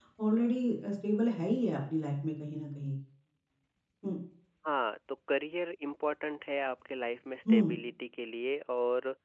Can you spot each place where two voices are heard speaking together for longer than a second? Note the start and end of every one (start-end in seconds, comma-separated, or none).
none